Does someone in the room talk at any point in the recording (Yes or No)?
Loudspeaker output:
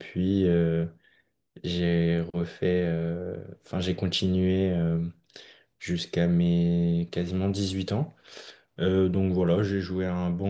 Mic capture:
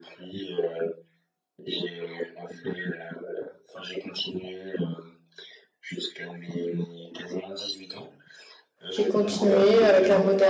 Yes